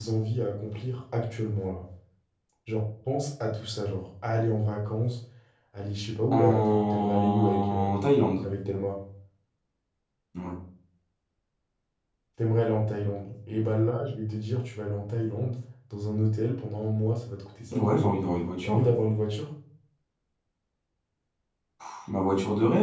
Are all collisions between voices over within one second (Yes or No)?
No